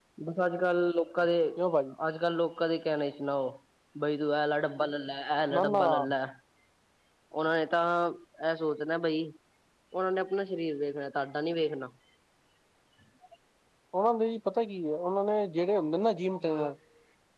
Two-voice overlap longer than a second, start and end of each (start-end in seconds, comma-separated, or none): none